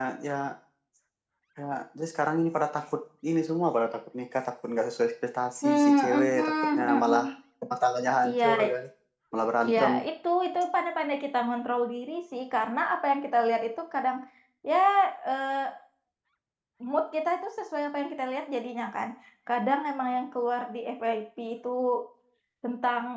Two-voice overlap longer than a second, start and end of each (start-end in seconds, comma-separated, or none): 5.6-7.2